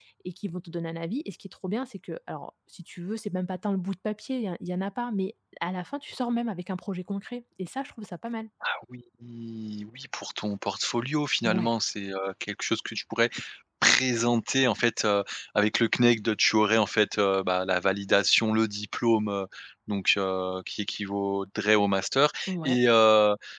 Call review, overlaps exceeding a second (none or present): none